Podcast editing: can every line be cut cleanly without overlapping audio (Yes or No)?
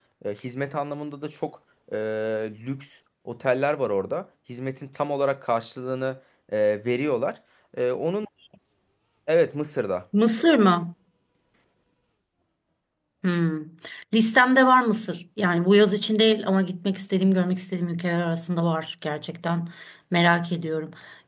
Yes